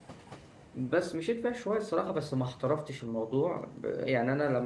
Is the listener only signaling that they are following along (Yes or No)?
Yes